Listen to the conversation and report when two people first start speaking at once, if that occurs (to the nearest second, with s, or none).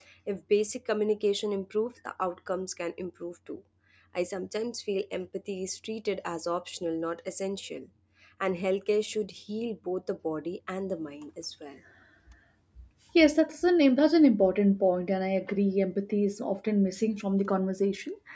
none